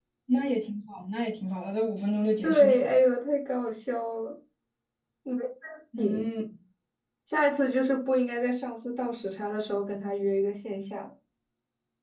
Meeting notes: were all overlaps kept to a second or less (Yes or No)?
Yes